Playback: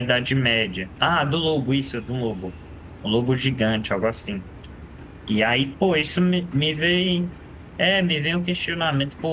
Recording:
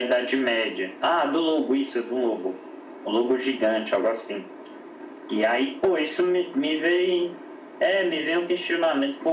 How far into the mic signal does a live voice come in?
none

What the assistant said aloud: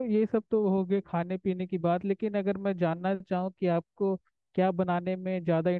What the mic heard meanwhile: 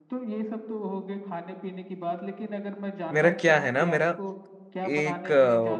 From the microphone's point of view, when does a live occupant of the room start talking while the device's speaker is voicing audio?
3.1 s

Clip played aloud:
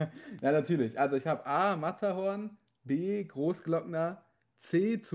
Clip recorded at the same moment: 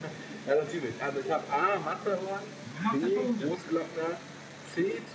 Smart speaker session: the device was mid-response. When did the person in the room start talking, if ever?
2.6 s

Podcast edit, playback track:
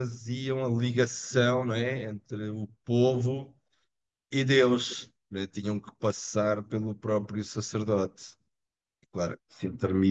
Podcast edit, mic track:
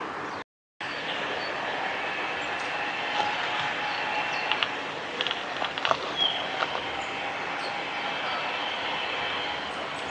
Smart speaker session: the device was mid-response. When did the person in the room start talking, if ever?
none

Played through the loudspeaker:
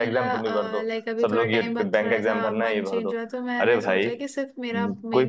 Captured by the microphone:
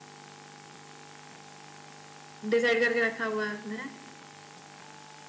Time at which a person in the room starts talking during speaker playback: 2.5 s

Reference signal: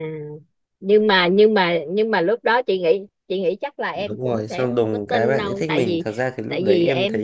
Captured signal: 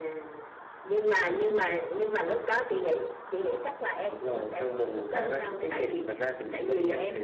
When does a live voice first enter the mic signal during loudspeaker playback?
none

